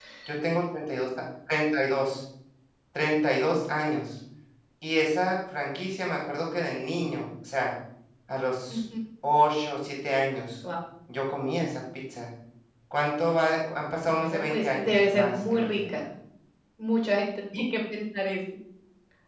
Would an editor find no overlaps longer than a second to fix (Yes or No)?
No